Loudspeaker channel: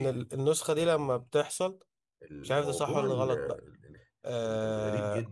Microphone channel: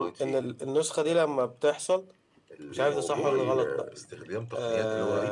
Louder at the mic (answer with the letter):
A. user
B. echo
B